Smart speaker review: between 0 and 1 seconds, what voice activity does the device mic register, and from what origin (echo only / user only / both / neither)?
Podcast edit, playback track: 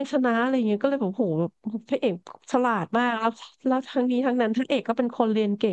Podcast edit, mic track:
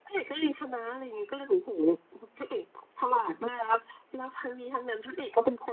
echo only